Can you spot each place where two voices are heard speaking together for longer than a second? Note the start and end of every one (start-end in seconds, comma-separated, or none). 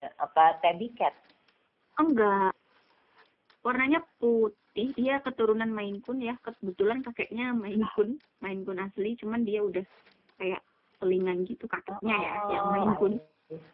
11.9-13.1